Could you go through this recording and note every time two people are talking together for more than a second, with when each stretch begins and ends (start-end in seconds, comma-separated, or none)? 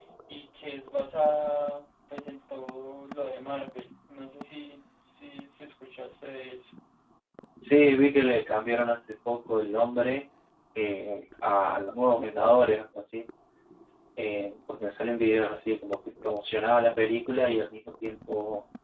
none